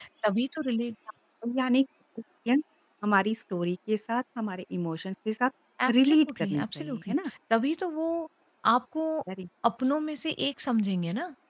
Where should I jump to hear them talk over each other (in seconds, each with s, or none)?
5.9 s